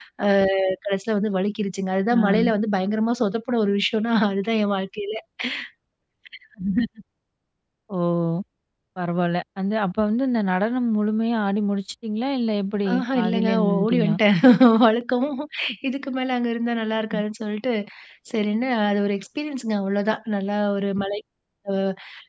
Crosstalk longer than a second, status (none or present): present